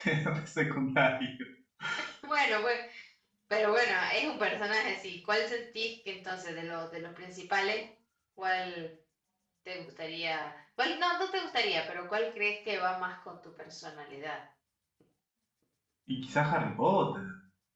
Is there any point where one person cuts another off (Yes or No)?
No